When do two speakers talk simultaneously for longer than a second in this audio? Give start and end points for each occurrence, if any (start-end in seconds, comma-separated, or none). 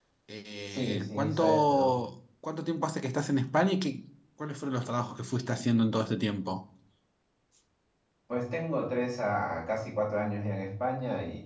0.7-1.9